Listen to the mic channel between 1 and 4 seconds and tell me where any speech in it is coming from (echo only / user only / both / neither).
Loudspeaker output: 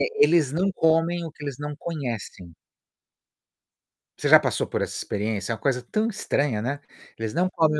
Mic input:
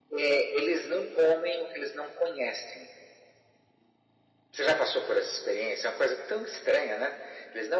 echo only